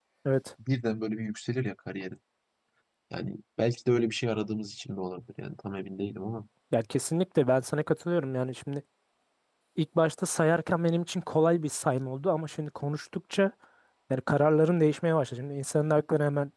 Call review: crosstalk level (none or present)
none